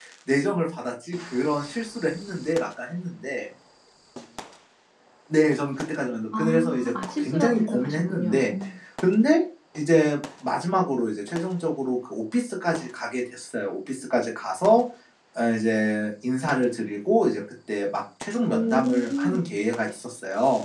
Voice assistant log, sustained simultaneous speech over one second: present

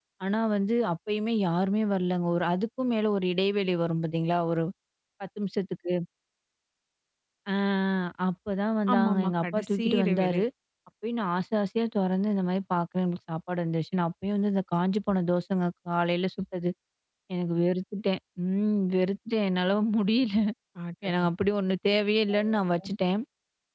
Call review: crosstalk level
present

